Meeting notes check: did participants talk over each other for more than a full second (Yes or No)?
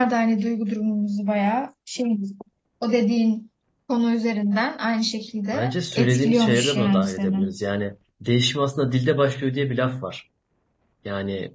Yes